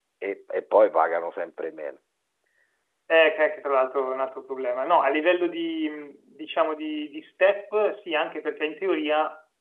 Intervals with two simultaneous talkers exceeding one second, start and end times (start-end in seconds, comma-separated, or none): none